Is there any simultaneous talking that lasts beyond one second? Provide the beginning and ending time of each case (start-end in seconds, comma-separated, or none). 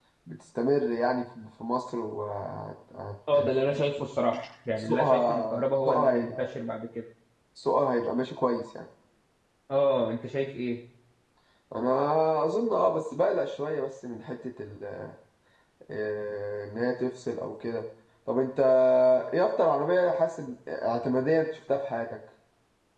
4.8-6.5